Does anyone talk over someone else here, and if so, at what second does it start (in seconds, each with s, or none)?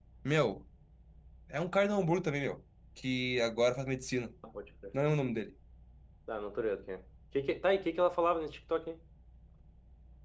none